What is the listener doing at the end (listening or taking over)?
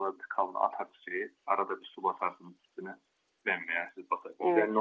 listening